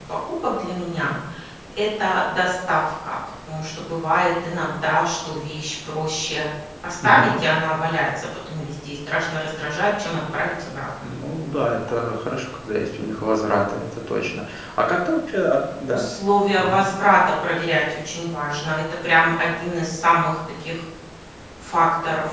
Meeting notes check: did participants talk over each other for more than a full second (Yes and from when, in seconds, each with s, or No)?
No